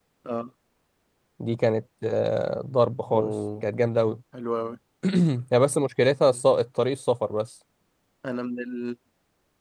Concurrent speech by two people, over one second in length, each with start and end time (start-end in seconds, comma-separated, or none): none